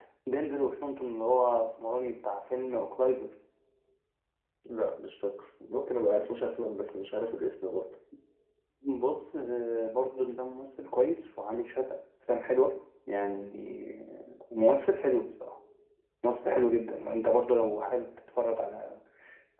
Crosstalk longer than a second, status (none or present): none